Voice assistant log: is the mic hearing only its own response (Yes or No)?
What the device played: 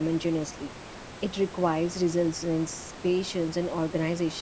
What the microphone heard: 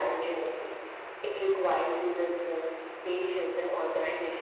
Yes